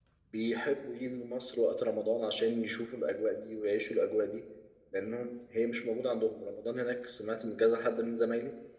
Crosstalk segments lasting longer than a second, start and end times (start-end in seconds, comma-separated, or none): none